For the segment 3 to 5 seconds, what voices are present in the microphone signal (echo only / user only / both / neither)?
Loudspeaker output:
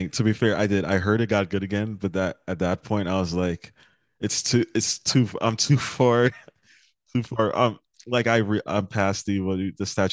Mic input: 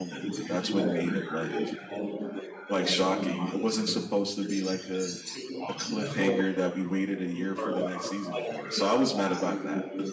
both